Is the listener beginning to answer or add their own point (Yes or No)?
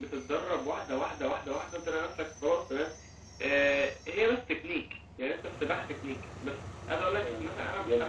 No